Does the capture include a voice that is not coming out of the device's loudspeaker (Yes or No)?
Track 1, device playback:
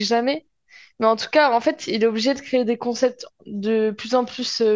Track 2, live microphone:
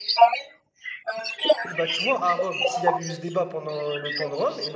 Yes